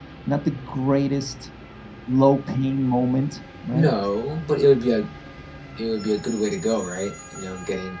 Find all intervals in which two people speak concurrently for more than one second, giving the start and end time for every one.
none

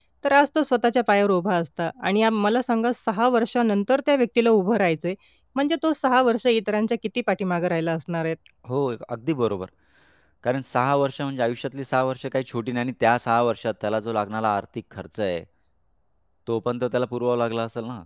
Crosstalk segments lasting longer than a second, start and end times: none

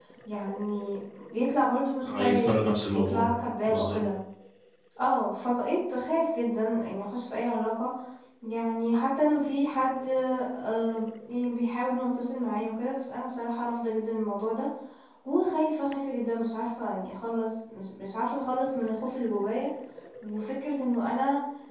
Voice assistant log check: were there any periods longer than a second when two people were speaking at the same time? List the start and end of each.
2.1-3.3

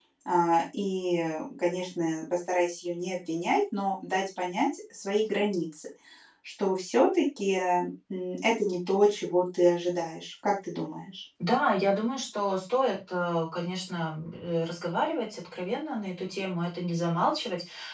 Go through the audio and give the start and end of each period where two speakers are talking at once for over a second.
none

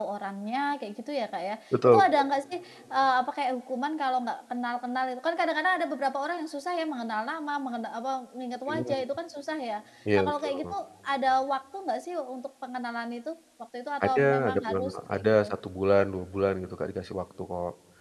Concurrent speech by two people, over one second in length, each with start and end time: 14.0-15.4

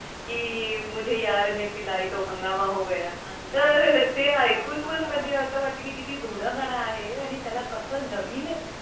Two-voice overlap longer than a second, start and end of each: 3.5-5.3

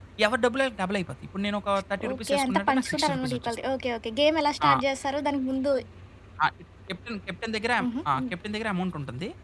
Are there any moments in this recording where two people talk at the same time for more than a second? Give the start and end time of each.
2.1-3.6

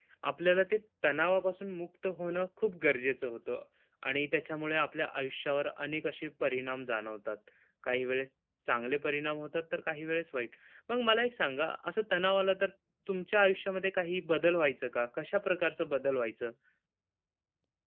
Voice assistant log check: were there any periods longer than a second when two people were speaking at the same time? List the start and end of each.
none

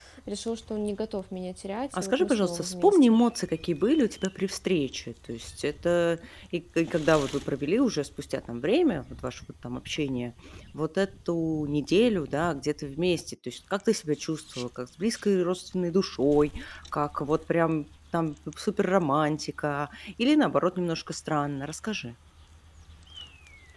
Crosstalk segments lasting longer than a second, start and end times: 1.9-3.2

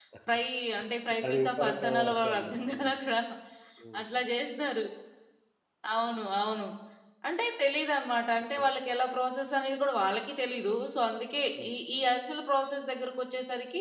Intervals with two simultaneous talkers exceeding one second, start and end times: 1.2-2.9

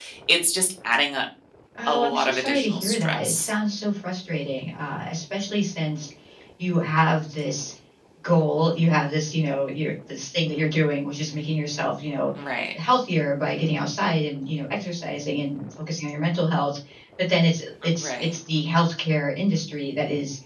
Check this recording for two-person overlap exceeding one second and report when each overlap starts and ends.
1.9-3.5

